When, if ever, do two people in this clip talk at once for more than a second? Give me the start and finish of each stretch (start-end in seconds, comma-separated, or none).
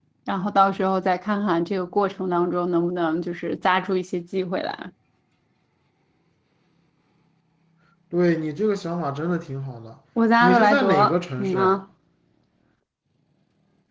10.4-11.8